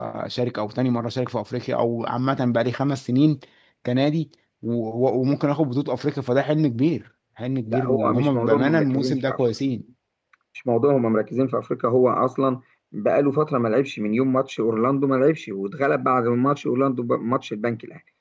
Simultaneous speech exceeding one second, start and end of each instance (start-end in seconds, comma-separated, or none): 7.7-9.4